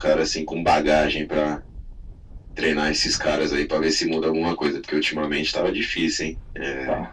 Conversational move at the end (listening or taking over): listening